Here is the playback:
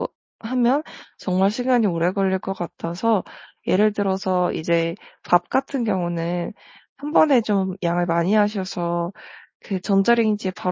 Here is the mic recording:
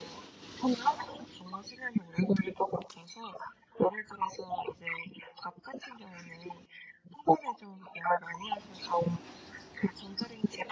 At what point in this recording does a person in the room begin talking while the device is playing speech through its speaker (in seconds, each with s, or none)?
none